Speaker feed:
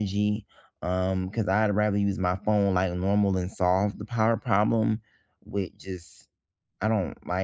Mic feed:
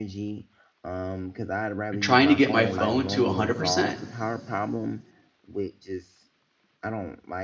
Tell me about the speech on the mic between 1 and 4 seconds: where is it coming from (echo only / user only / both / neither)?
both